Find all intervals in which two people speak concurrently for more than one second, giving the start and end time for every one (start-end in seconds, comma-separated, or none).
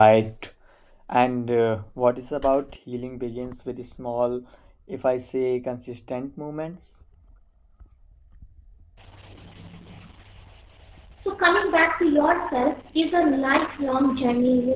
none